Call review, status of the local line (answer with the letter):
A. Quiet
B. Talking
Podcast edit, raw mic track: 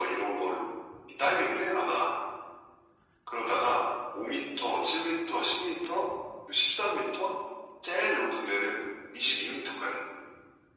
A